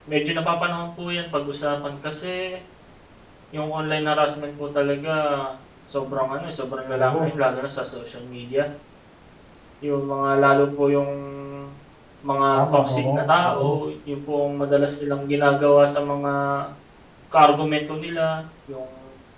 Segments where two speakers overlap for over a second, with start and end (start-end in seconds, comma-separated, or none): 12.5-13.8